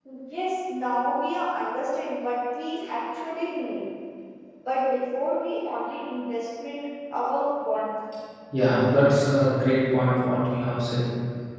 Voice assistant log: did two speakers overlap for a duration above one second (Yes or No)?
No